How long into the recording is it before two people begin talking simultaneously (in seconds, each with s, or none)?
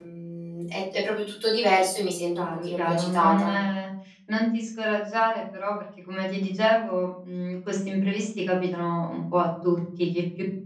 2.3 s